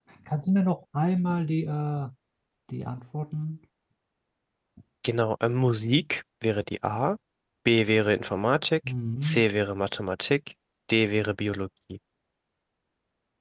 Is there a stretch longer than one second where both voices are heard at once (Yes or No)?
No